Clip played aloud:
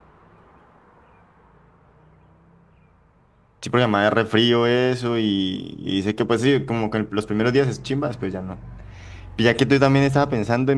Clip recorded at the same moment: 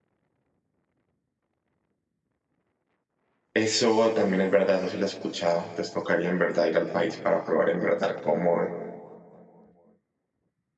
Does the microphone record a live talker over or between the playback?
Yes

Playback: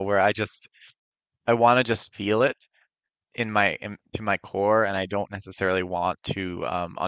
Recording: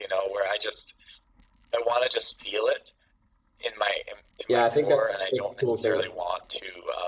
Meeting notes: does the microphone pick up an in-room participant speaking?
Yes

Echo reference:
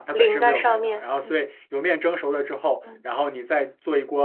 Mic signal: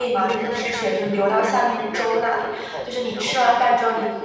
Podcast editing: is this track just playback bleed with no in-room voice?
No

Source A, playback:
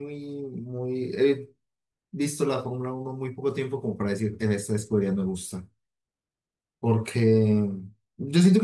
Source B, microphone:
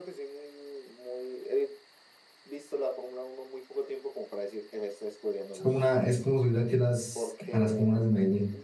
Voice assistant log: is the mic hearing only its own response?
No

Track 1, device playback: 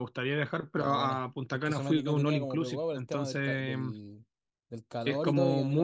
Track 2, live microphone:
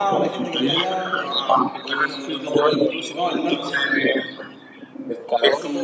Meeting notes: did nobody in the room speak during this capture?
No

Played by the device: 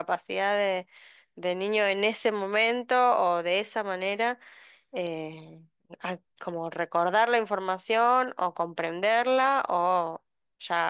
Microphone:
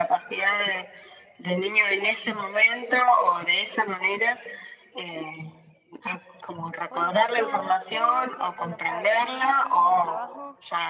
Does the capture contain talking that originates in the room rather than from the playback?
Yes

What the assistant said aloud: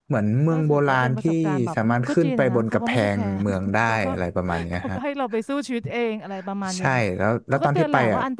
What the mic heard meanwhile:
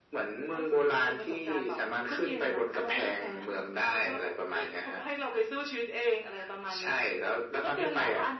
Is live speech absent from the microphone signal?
Yes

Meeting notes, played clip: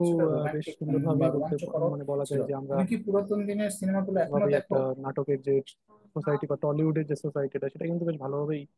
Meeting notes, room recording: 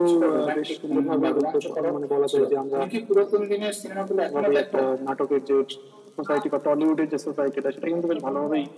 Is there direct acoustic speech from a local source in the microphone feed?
Yes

